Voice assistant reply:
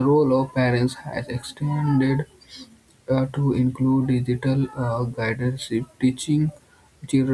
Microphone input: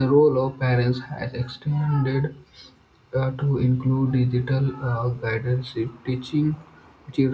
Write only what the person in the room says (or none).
none